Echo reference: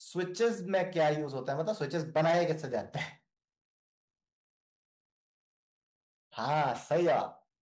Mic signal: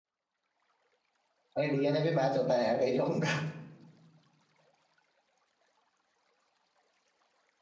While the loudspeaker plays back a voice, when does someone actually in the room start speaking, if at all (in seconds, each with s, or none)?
1.6 s